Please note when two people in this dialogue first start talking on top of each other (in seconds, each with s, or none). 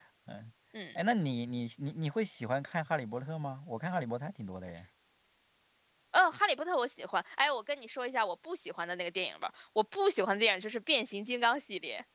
none